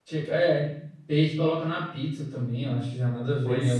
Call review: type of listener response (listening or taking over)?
taking over